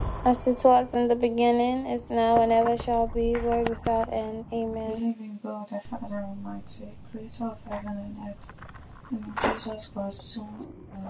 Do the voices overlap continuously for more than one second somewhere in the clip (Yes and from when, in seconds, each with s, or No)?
No